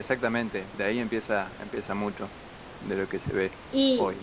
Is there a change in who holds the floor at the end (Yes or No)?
Yes